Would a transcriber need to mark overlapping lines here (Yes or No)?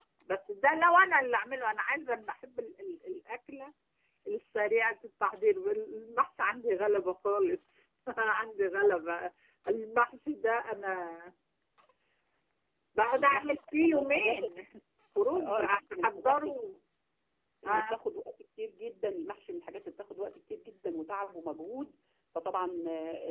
Yes